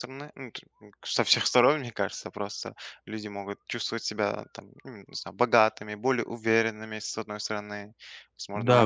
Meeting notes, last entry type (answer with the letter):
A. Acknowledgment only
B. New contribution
B